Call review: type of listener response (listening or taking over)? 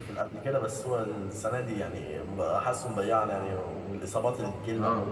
taking over